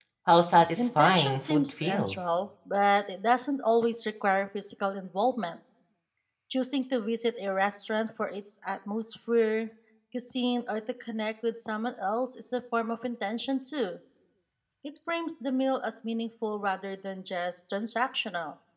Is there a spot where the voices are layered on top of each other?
Yes, from 0.8 s

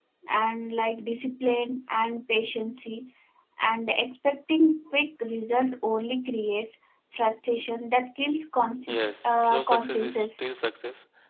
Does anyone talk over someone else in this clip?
Yes, from 8.9 s

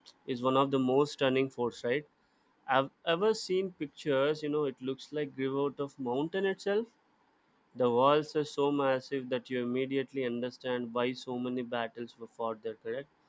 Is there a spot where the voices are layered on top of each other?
No

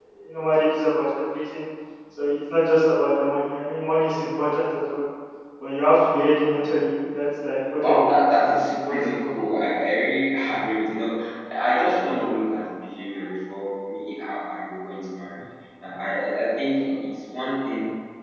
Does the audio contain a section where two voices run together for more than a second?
Yes, from 7.8 s

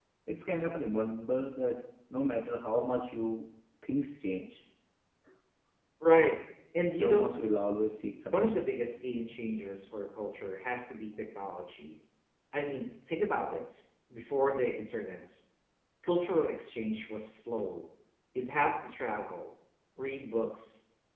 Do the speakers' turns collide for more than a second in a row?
No

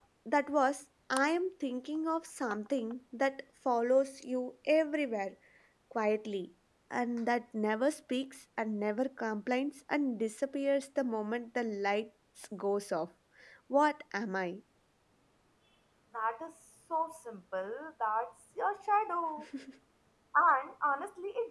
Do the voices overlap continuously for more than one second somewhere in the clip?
No

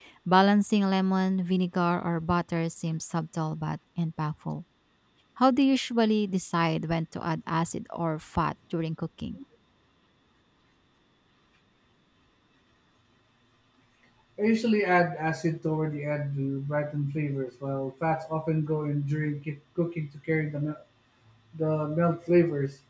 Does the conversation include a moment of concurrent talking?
No

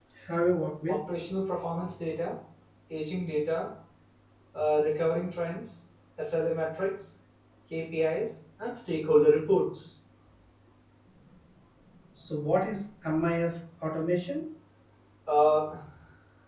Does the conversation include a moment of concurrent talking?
No

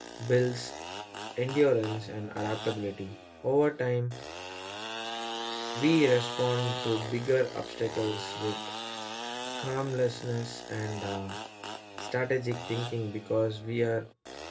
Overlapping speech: No

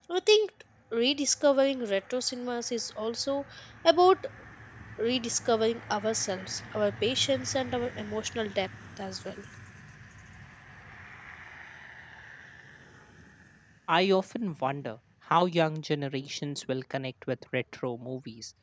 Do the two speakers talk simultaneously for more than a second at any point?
No

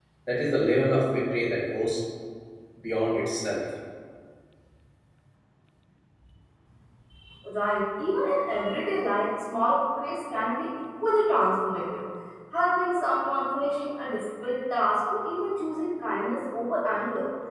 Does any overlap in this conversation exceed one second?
No

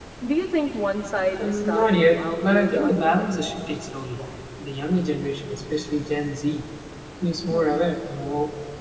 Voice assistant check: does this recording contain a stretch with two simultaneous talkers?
Yes, from 1.4 s

